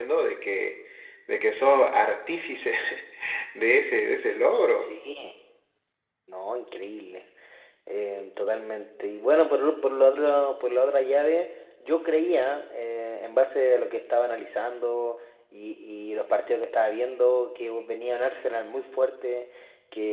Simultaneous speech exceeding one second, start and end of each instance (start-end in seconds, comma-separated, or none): none